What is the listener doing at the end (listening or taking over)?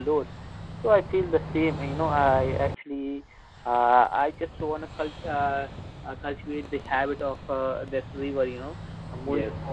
listening